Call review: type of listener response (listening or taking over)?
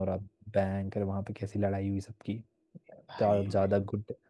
listening